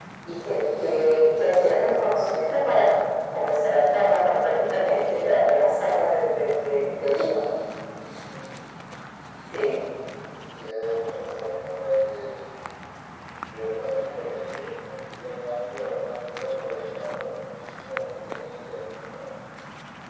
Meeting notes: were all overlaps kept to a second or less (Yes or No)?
Yes